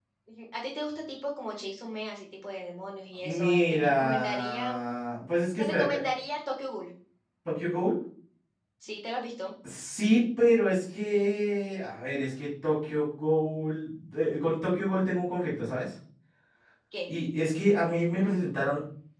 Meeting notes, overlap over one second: present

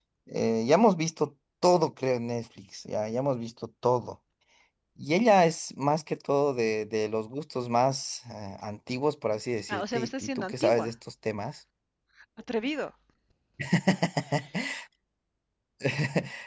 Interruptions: present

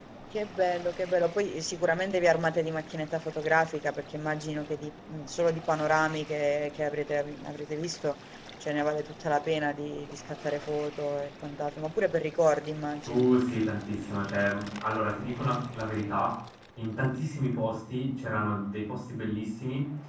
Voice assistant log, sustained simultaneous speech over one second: none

